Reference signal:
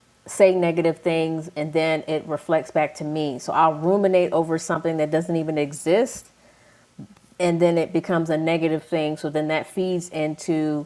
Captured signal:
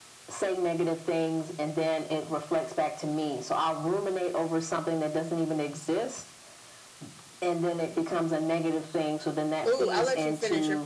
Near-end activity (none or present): present